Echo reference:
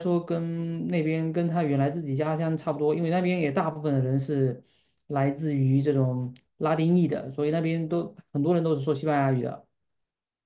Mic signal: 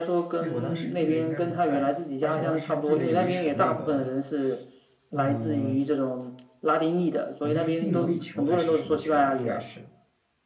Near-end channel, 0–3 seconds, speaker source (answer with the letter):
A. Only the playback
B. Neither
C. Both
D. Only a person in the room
C